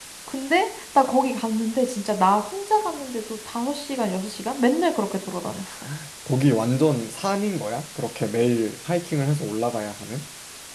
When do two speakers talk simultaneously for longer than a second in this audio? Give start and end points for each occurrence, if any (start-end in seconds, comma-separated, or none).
none